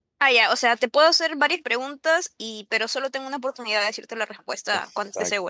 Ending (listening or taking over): taking over